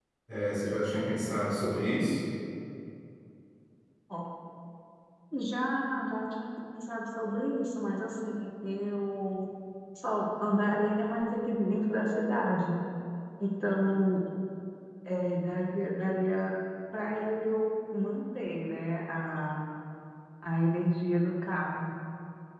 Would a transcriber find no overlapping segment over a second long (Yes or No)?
Yes